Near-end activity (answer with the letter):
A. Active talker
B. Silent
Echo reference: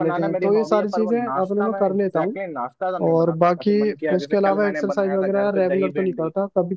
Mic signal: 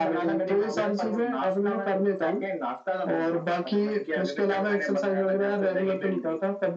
B